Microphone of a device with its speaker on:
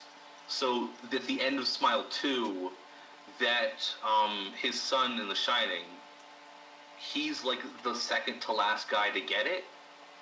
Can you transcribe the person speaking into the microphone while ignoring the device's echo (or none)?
none